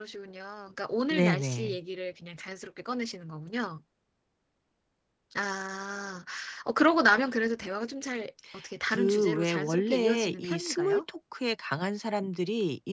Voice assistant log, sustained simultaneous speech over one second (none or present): present